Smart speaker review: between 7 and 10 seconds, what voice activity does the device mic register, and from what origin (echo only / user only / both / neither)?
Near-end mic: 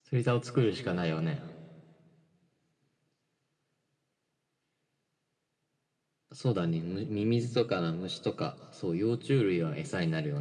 echo only